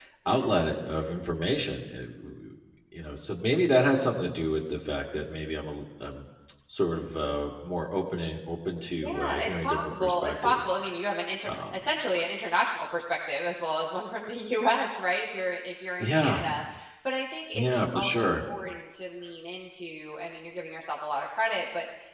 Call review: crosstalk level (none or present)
present